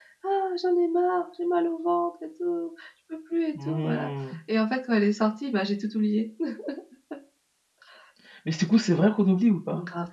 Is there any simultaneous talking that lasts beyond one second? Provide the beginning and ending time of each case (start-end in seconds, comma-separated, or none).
none